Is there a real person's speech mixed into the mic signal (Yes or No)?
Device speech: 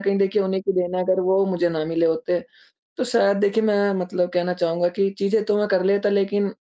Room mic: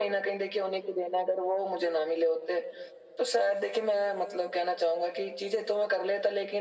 No